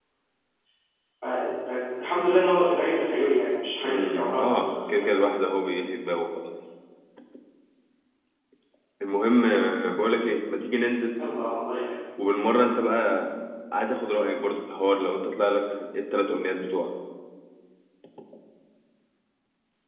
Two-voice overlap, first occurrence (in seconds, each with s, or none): 3.8 s